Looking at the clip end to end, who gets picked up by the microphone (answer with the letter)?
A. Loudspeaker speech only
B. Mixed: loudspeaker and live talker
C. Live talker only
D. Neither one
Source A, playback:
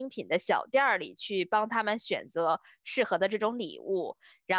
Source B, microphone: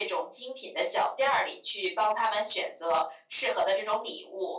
A